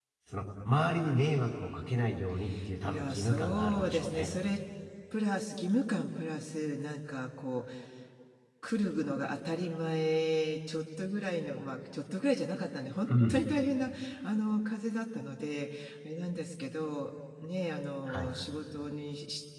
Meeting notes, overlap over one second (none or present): present